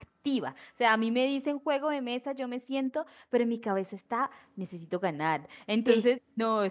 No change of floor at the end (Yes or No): Yes